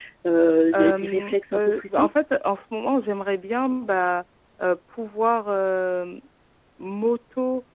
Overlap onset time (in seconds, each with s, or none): 0.7 s